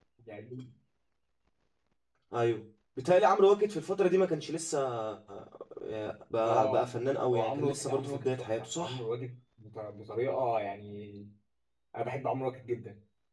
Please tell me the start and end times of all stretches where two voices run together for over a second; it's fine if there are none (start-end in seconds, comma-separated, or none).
7.3-9.0